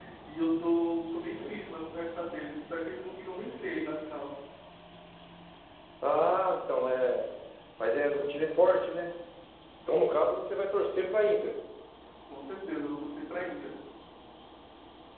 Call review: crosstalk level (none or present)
none